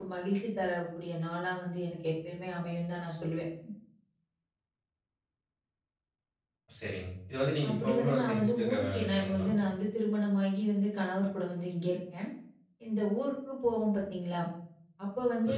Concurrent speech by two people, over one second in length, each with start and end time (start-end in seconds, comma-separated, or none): 7.7-9.5